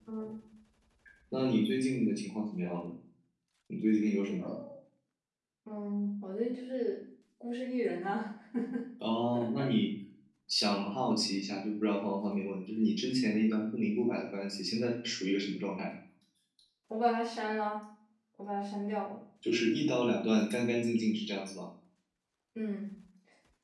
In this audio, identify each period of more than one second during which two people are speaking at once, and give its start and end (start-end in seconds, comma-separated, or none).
none